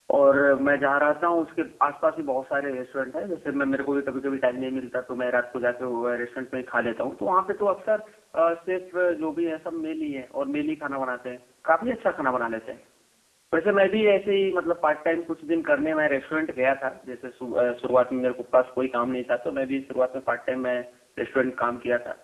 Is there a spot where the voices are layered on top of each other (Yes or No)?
No